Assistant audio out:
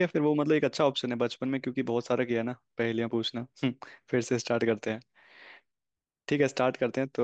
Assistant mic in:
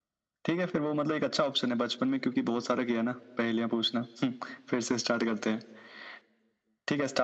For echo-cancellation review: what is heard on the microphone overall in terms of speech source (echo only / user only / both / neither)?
echo only